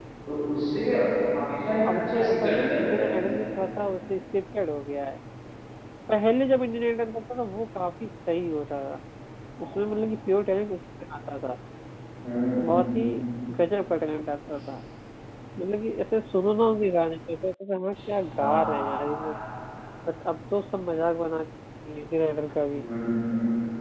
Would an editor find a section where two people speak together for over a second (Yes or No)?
Yes